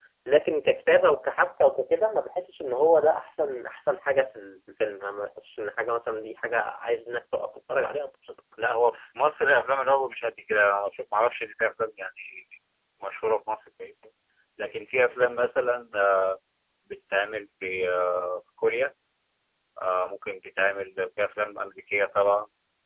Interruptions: none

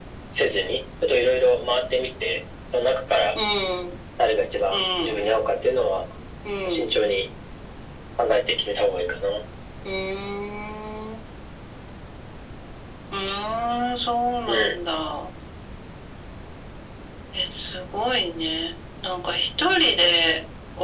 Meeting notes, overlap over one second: none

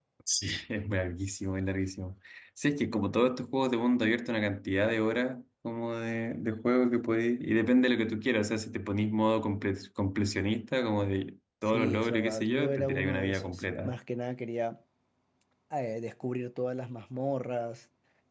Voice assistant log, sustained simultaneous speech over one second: present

